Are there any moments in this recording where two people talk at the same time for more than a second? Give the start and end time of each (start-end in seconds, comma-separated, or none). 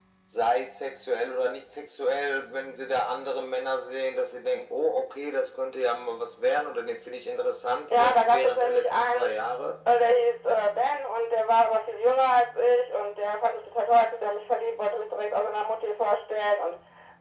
7.9-9.3